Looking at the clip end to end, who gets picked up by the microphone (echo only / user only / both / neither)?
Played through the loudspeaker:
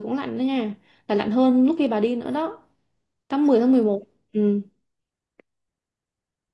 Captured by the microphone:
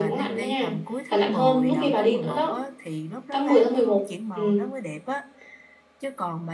both